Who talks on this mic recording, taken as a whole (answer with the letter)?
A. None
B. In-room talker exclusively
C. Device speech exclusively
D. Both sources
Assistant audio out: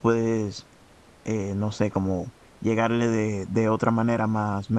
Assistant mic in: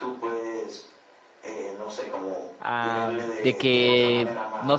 D